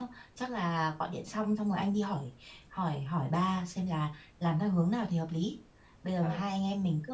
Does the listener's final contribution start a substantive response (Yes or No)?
No